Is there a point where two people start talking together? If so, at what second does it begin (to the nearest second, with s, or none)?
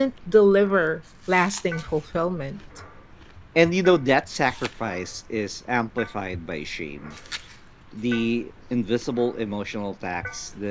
none